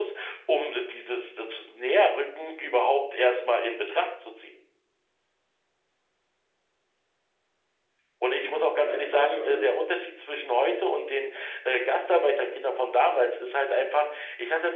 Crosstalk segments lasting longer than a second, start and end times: 8.4-9.7

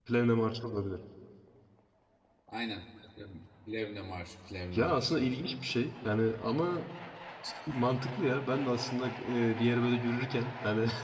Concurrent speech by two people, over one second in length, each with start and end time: none

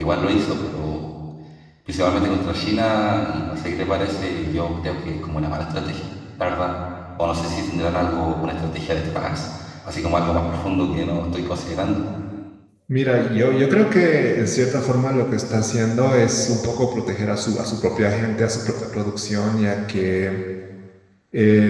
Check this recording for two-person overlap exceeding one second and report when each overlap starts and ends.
none

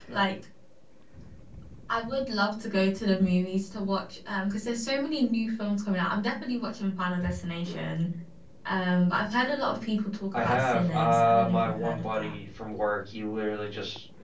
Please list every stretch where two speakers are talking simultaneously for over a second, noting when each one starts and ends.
10.3-12.3

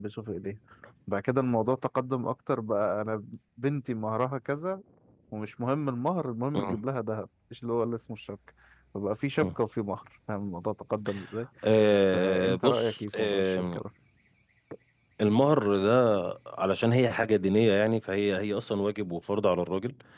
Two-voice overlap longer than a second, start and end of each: 12.1-13.8

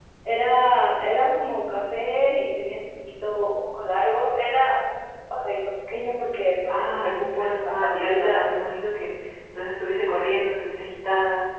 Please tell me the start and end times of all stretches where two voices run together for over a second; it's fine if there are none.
6.7-8.5

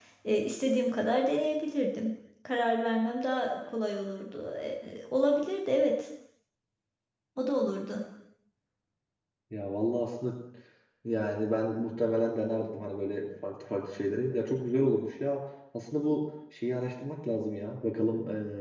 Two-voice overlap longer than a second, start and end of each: none

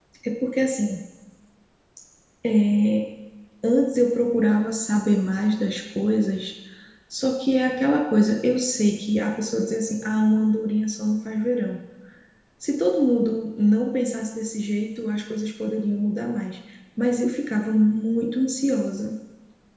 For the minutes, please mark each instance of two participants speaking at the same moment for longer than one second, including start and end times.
none

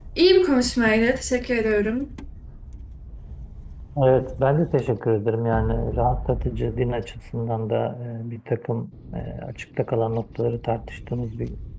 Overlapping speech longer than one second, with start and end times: none

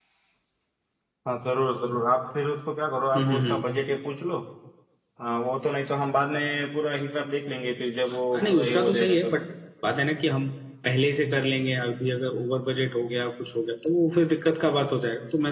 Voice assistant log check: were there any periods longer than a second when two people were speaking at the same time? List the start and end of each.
8.1-9.4

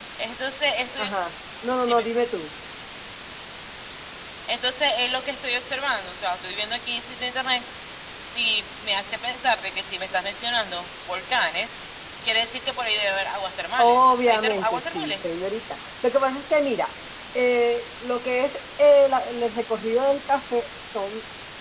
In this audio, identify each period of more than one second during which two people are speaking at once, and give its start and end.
13.8-15.1

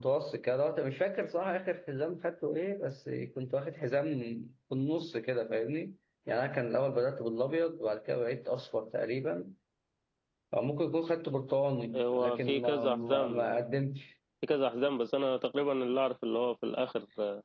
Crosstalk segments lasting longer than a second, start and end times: 12.0-13.3

